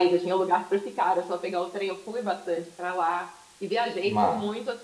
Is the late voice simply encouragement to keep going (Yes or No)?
Yes